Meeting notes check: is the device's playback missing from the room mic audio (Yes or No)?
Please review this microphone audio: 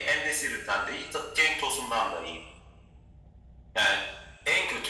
No